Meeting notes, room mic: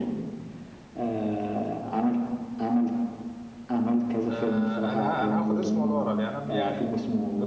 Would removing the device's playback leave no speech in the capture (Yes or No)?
No